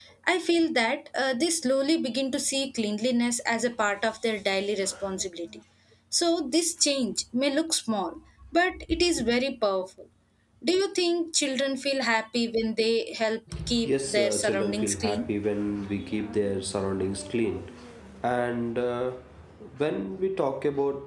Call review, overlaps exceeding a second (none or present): present